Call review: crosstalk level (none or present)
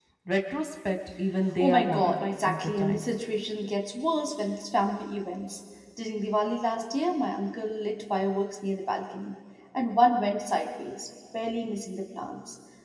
present